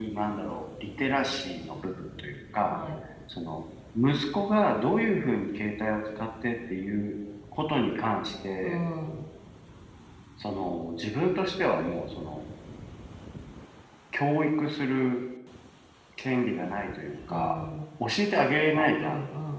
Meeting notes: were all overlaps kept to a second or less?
Yes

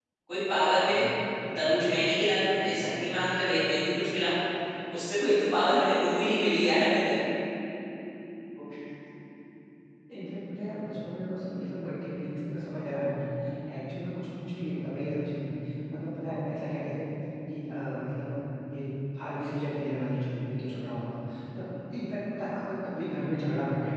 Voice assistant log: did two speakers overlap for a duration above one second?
No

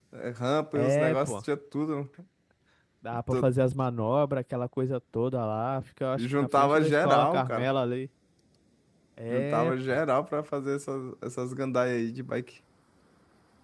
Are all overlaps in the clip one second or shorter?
No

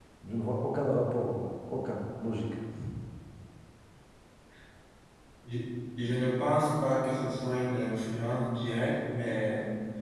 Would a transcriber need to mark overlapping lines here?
No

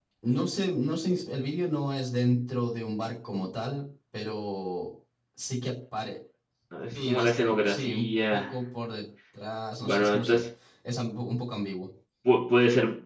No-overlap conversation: No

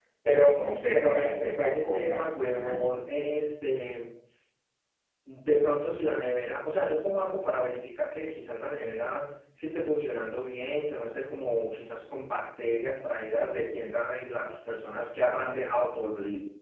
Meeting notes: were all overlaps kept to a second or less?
No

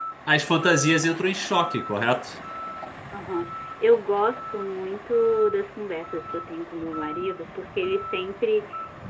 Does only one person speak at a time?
Yes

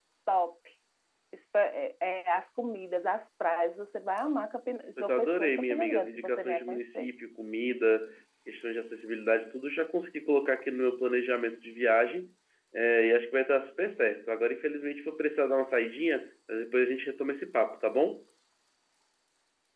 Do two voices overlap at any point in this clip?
Yes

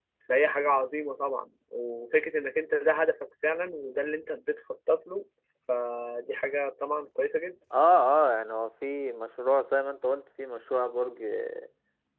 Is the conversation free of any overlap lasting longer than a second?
Yes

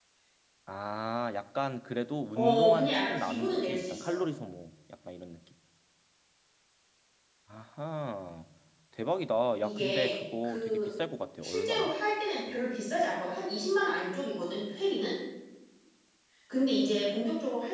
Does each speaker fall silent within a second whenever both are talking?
No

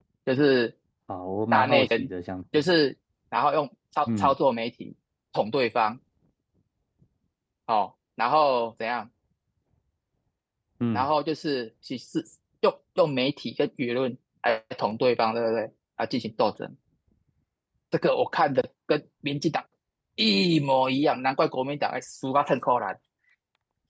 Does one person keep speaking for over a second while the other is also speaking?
No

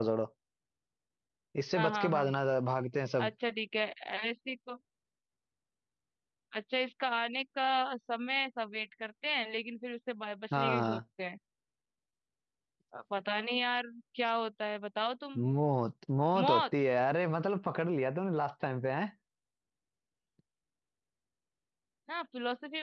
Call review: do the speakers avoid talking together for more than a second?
Yes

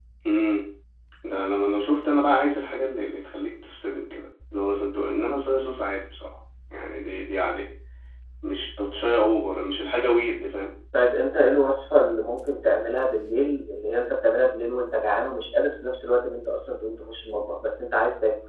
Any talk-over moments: No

